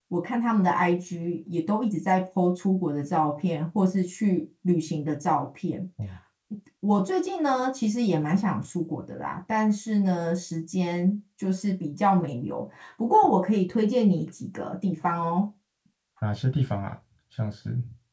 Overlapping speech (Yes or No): No